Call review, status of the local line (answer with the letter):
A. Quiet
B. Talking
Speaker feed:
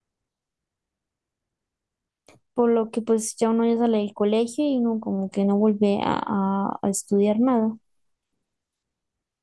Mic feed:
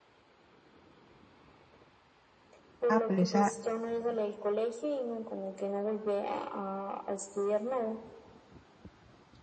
B